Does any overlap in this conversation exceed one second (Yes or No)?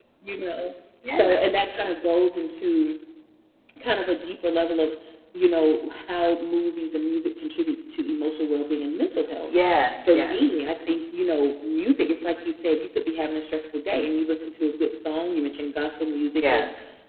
No